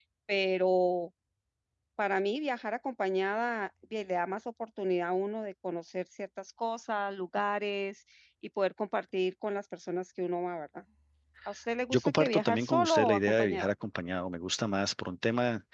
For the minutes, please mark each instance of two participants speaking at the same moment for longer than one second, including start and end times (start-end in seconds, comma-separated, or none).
11.9-13.7